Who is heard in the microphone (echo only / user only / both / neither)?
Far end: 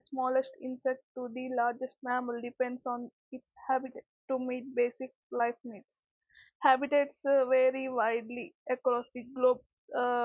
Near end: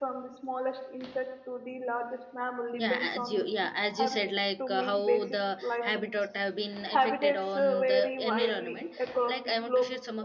both